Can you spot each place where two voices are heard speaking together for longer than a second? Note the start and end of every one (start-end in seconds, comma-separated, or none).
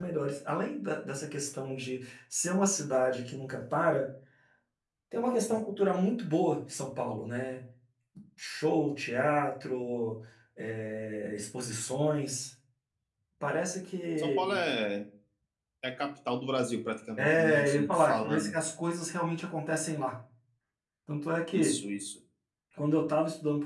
17.2-18.5